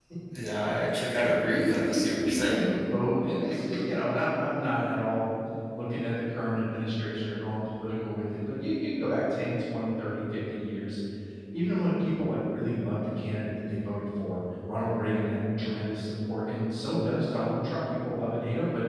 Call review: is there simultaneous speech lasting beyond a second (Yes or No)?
Yes